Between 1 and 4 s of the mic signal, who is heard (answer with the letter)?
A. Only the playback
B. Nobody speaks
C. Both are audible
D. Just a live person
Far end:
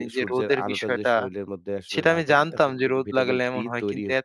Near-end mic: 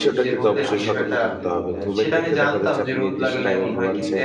C